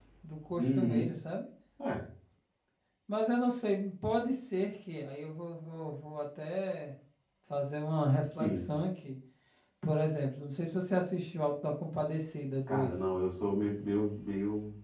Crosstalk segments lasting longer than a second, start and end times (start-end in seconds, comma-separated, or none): none